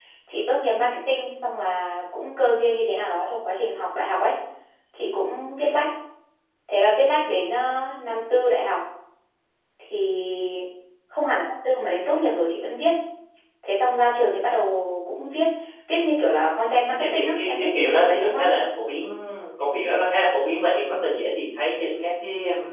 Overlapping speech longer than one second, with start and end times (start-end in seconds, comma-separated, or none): 16.9-18.5